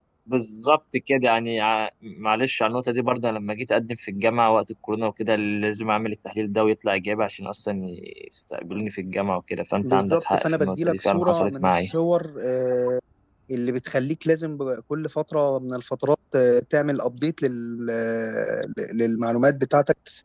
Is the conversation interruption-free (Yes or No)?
No